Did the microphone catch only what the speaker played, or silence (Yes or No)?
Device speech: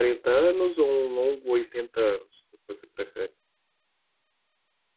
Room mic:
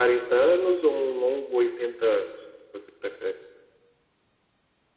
Yes